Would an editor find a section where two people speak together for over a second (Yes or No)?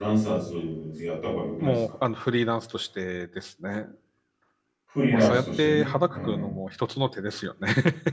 Yes